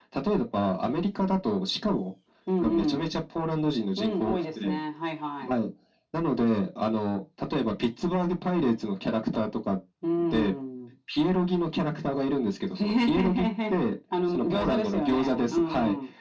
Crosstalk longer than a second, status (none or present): present